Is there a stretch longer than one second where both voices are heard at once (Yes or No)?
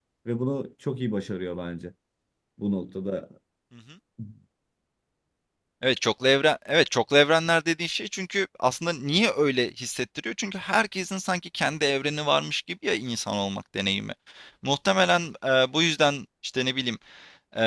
No